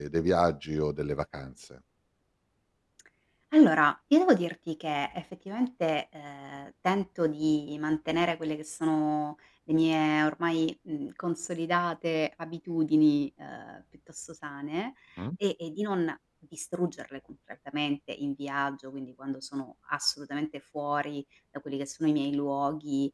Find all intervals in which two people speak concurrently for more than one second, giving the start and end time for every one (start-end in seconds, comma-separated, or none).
none